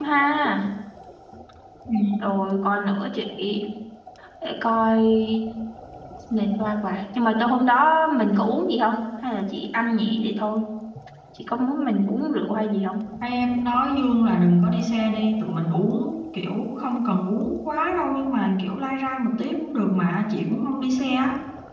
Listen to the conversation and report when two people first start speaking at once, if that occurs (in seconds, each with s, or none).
none